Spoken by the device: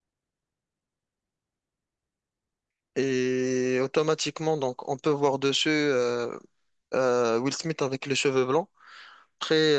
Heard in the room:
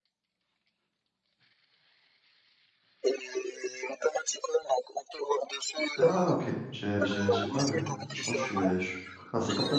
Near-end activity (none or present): present